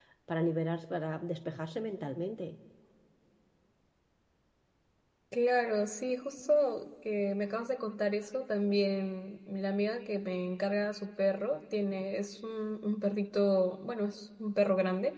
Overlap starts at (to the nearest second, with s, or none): none